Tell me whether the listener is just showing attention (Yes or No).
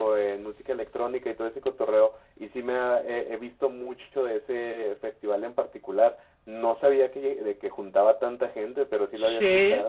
No